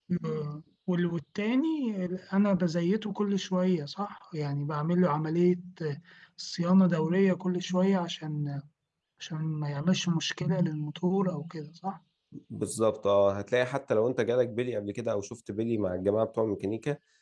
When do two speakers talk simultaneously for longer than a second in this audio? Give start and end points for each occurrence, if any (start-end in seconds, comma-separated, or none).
none